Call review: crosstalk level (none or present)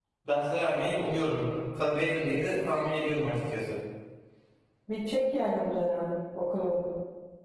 none